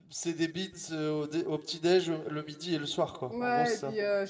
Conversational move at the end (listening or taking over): taking over